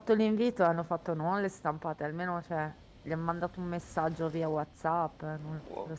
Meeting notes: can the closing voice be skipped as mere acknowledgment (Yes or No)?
No